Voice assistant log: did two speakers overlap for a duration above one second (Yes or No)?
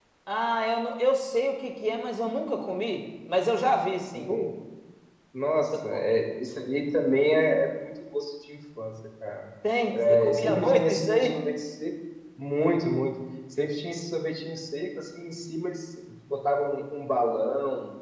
Yes